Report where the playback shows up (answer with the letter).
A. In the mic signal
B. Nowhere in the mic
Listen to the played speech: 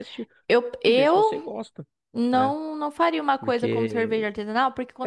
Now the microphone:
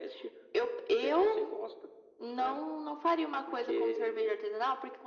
A